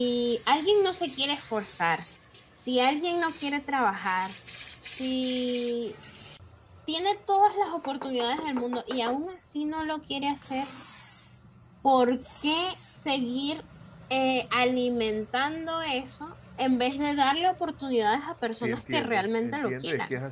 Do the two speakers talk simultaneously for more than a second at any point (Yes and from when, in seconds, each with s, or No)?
Yes, from 18.6 s